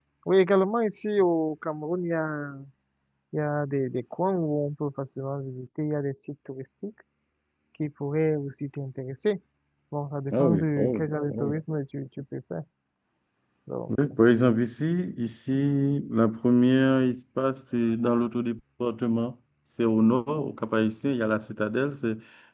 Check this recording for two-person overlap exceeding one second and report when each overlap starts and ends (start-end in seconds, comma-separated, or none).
10.3-11.5